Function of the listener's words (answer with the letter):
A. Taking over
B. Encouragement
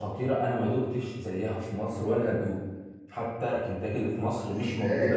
A